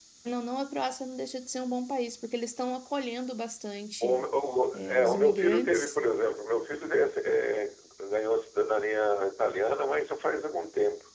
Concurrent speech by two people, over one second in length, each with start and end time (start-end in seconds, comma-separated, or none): 4.7-6.0